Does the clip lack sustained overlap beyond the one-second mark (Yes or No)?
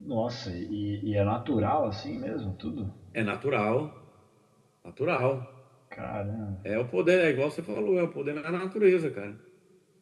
Yes